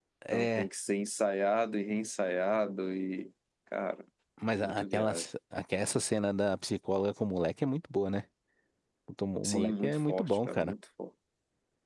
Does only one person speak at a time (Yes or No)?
No